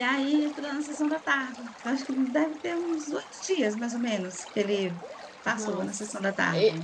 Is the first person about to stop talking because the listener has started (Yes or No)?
Yes